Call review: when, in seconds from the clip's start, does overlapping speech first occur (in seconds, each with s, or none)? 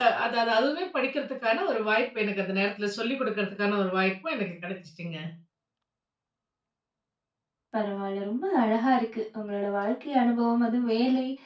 none